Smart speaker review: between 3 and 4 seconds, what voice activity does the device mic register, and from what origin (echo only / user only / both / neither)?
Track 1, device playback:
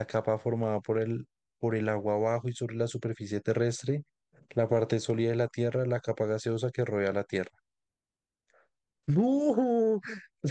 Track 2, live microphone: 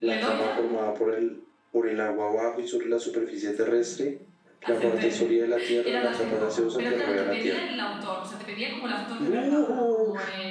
both